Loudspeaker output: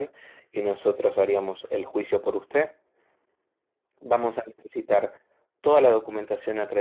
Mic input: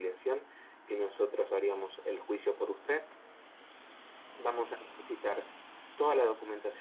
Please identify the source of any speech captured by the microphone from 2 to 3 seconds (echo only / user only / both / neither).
echo only